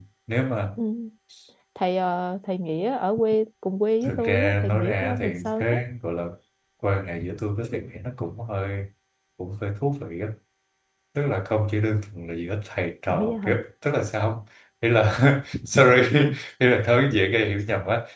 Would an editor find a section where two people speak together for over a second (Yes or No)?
Yes